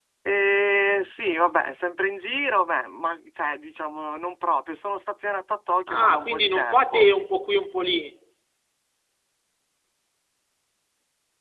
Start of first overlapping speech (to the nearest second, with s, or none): 6 s